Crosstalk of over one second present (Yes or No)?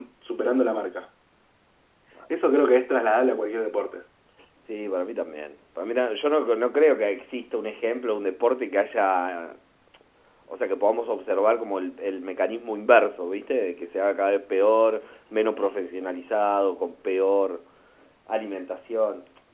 No